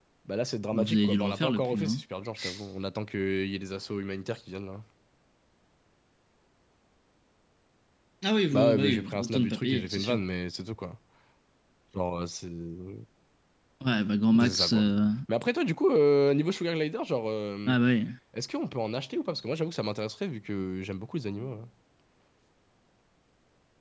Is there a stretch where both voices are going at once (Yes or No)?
Yes